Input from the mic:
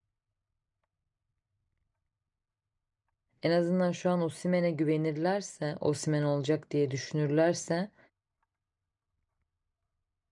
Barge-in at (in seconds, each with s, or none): 3.4 s